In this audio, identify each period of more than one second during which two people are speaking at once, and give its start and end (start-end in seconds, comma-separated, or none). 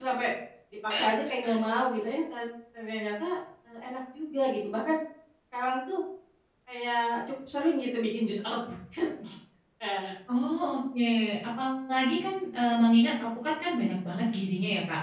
none